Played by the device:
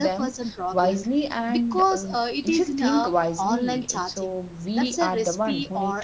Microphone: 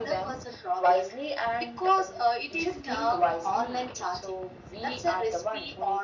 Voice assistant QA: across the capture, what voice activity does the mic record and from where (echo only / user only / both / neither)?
echo only